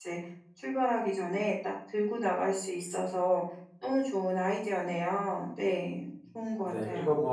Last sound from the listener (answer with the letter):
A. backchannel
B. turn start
B